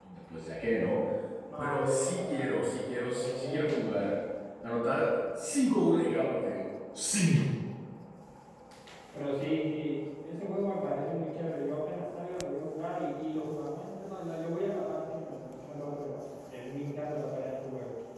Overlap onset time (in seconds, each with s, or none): 1.6 s